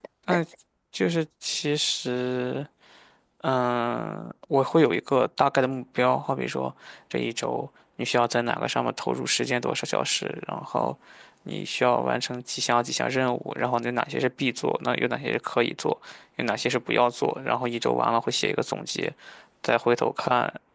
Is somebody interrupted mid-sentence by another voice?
No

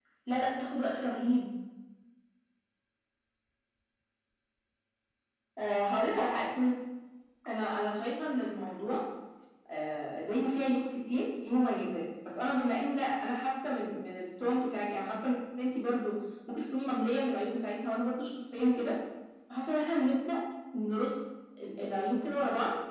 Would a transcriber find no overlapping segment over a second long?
Yes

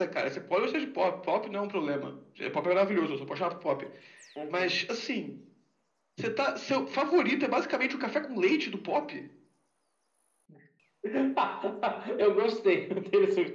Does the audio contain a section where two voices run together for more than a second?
No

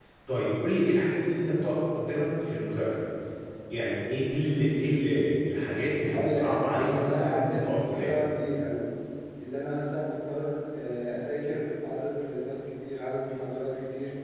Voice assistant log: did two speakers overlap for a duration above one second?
Yes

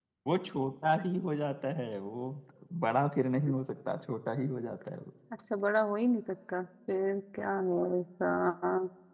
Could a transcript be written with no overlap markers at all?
Yes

